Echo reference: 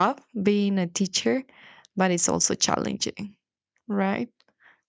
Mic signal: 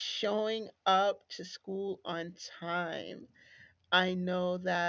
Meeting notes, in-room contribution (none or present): present